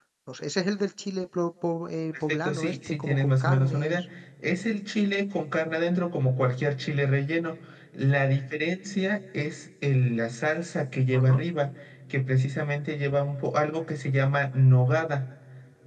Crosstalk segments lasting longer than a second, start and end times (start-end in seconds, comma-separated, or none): 2.3-4.0